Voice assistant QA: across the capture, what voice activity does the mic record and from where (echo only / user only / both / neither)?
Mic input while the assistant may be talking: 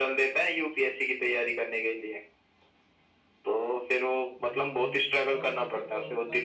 both